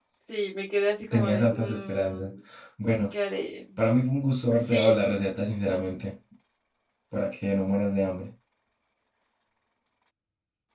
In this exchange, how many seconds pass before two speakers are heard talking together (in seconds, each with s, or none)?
1.1 s